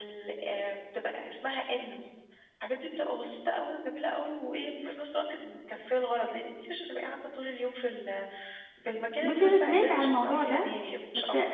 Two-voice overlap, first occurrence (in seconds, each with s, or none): 9.2 s